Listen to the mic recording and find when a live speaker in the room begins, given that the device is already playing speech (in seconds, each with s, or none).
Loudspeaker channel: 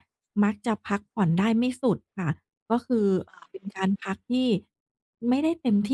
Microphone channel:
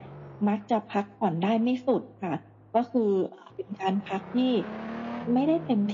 none